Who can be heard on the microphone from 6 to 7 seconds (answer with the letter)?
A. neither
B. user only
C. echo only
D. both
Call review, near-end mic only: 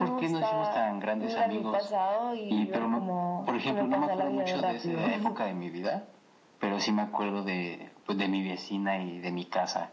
C